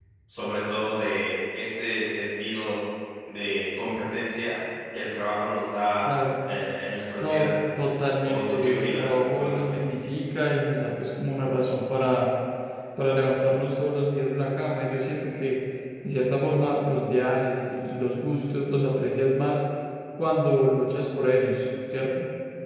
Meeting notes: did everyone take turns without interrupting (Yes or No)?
No